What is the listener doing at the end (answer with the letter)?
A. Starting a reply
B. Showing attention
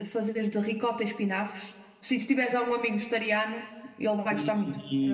A